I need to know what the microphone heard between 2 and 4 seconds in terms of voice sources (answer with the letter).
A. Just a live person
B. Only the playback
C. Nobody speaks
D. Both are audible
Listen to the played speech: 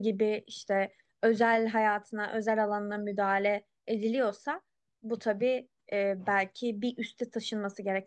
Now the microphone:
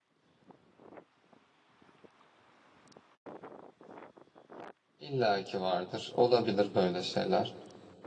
C